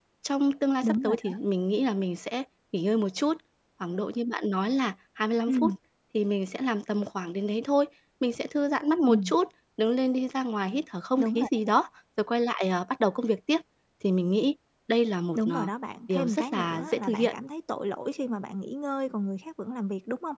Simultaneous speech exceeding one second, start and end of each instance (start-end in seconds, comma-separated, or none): 16.1-17.3